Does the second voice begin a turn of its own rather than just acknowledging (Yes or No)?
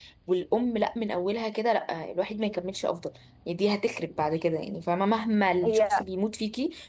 No